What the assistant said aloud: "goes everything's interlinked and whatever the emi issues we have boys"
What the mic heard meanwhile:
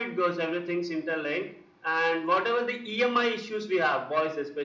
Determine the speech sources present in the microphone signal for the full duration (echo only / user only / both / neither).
echo only